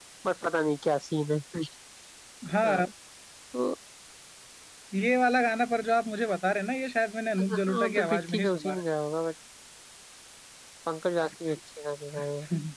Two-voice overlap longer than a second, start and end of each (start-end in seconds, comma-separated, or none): 7.4-8.7